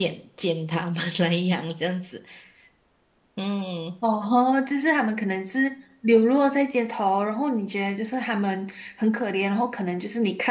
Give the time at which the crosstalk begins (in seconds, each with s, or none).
none